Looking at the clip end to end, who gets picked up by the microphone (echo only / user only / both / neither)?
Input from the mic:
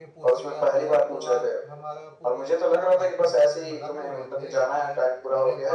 both